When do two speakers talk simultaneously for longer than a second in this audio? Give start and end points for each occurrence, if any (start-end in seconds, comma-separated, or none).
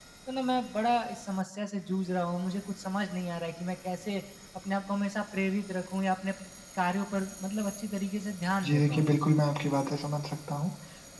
none